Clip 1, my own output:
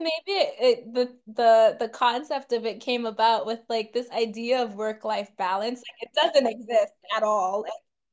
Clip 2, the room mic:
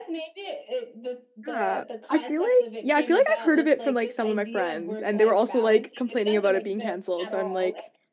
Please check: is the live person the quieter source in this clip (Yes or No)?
No